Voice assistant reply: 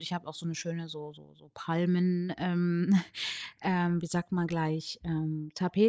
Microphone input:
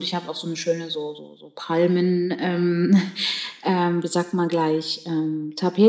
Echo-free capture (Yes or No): No